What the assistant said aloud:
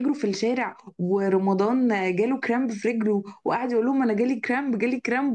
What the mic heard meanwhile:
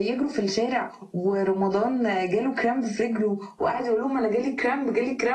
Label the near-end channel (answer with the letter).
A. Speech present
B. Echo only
B